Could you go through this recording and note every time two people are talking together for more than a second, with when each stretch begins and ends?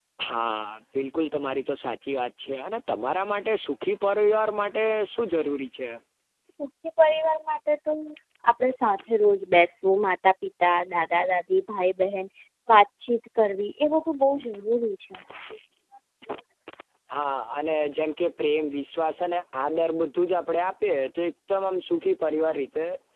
none

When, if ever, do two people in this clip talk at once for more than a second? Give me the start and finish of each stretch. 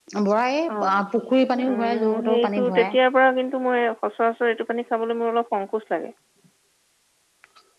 1.7-3.0

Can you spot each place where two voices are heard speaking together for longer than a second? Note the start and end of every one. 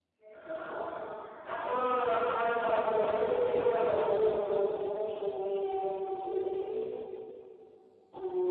2.9-4.3

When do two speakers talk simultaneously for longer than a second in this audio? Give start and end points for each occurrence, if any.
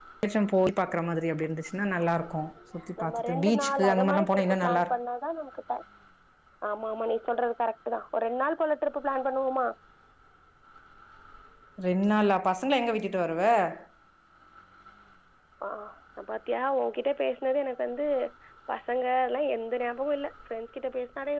3.0-5.0

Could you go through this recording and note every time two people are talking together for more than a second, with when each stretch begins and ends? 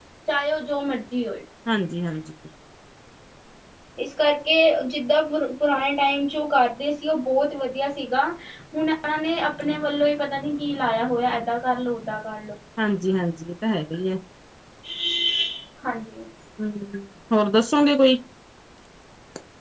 none

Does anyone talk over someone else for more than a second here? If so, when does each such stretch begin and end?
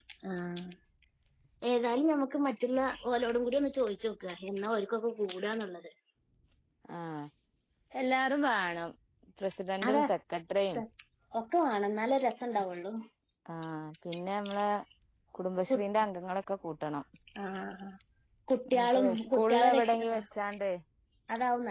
18.7-20.0

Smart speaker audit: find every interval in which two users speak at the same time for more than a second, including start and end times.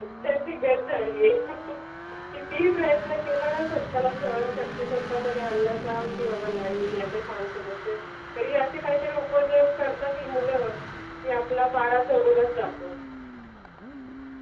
none

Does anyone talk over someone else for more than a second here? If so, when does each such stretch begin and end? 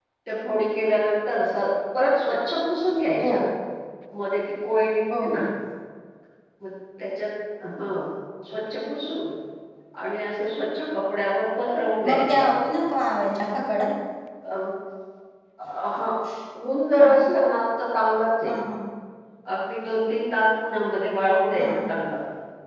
none

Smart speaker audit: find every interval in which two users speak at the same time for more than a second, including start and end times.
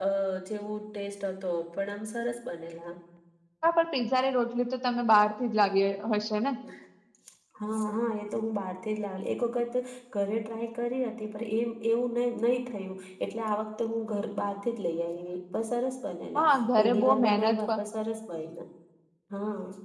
16.4-17.6

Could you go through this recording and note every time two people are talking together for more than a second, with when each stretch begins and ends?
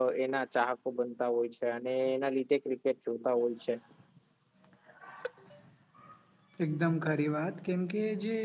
none

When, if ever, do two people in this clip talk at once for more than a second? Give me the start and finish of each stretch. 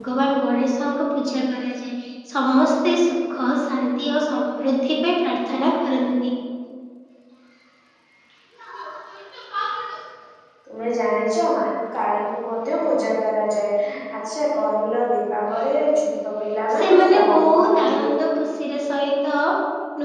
16.8-18.0

